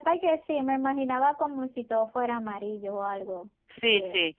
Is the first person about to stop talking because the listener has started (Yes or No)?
Yes